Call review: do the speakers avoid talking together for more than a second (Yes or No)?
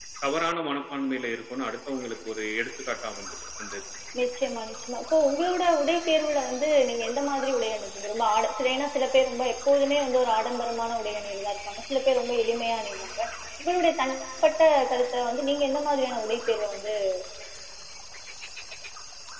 Yes